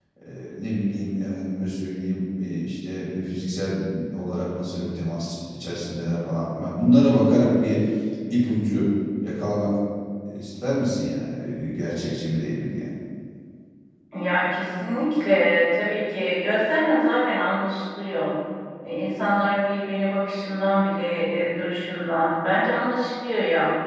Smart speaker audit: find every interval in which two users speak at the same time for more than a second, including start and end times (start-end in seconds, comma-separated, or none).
none